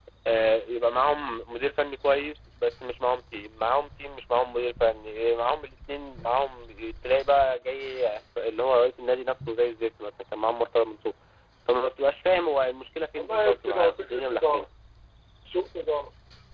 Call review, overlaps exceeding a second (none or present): present